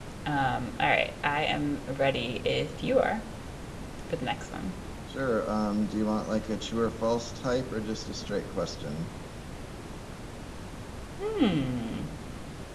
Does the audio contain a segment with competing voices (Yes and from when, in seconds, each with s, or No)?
No